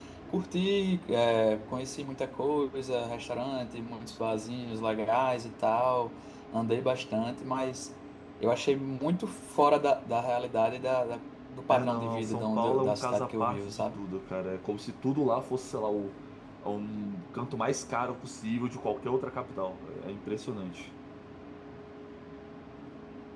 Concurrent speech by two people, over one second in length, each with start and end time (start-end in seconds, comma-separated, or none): 11.7-14.0